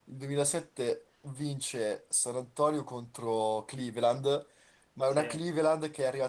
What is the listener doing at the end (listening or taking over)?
listening